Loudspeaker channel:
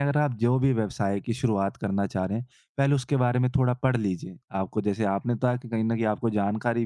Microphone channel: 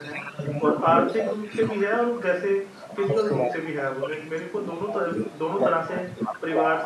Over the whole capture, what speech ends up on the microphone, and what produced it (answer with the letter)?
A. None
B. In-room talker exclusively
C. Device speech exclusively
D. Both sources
D